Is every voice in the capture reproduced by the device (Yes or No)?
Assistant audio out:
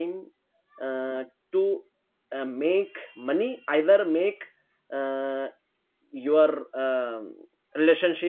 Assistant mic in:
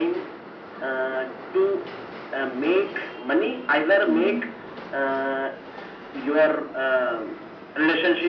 No